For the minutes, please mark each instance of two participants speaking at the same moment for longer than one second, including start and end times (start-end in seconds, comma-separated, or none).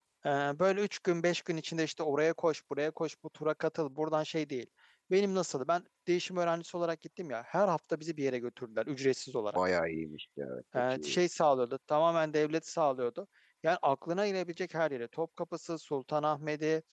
none